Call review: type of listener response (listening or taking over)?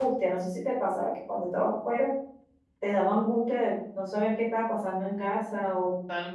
taking over